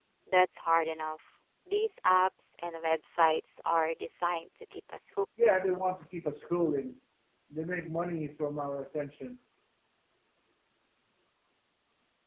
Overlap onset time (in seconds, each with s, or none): none